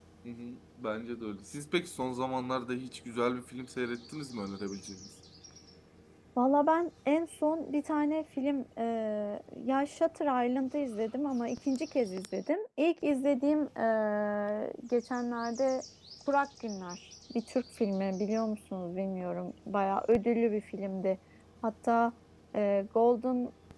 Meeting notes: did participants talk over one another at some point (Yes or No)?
No